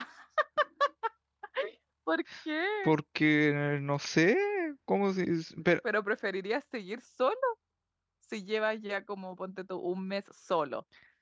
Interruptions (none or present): none